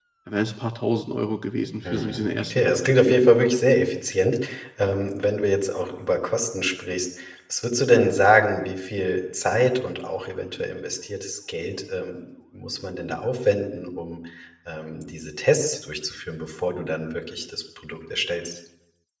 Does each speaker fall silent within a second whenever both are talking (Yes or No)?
No